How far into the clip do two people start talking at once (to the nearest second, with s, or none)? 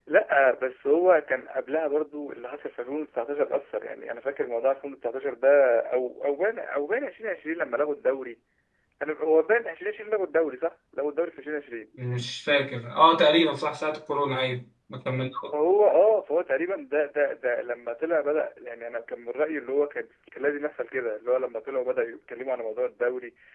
none